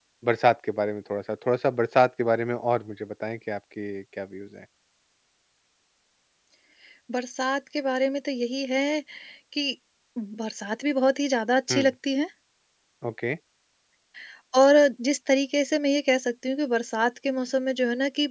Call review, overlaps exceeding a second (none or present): none